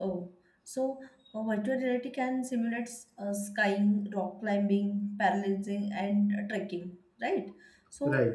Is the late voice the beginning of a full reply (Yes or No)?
No